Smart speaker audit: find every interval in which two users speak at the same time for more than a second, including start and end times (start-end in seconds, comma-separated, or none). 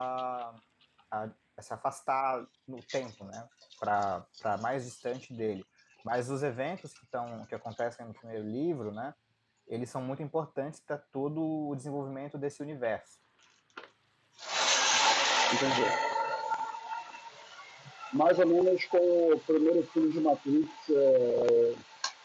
none